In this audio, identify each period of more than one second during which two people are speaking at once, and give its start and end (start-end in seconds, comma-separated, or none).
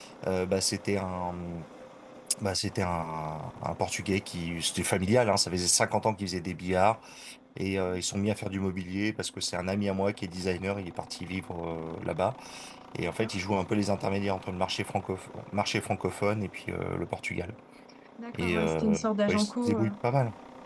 18.4-19.9